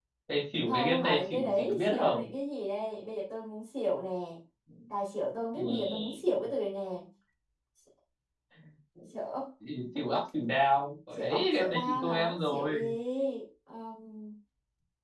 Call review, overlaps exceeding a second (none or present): present